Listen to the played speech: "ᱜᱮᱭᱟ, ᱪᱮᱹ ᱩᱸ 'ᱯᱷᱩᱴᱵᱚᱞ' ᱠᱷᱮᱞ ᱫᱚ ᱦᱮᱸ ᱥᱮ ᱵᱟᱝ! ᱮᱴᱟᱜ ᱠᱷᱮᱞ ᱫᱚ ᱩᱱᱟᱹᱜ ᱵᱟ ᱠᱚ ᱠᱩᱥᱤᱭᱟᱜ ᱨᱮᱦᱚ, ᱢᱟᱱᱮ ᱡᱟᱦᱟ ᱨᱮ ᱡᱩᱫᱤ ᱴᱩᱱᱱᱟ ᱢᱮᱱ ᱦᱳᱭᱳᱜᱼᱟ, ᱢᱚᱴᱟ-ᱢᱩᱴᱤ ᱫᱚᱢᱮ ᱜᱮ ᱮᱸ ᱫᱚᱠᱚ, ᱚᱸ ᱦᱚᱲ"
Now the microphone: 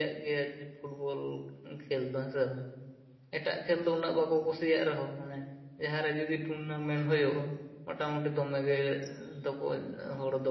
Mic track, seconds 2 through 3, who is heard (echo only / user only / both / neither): echo only